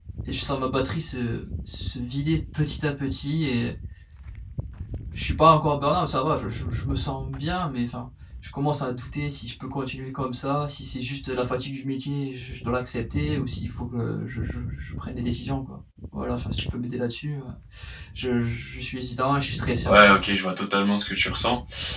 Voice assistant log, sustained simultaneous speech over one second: none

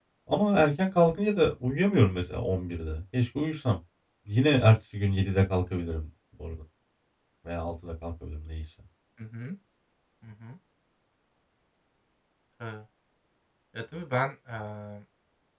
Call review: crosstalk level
none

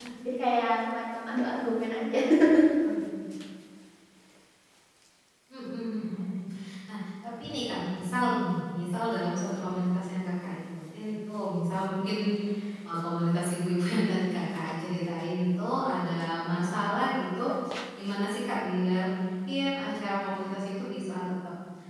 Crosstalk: none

